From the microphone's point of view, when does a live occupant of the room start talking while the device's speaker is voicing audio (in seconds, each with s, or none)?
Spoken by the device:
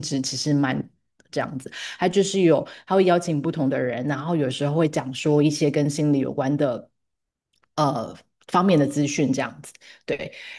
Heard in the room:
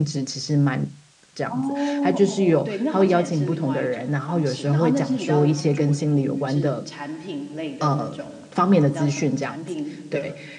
1.5 s